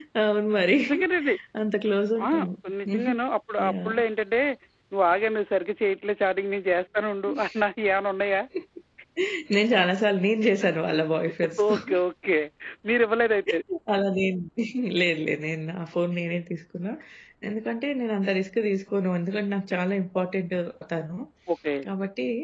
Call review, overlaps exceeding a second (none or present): none